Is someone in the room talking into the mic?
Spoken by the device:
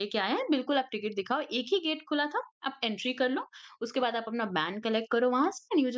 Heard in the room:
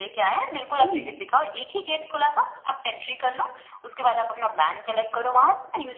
Yes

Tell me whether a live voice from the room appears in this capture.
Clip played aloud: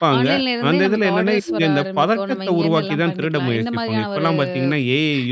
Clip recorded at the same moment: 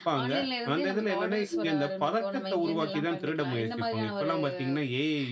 No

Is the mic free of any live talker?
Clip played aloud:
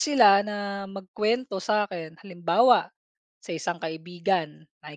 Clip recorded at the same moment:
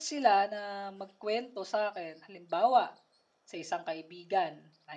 Yes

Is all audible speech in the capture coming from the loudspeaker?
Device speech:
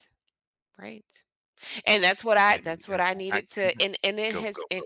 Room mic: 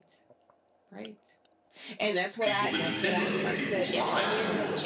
No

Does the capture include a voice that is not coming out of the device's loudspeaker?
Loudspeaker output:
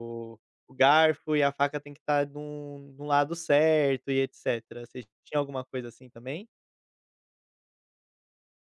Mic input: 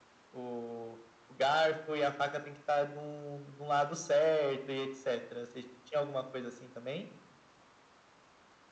No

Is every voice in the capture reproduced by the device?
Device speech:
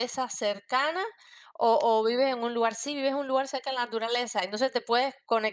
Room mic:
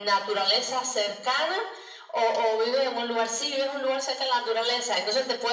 Yes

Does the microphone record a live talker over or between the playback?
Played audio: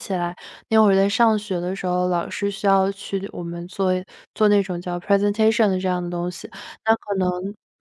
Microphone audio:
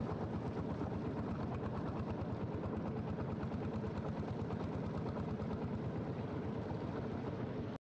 No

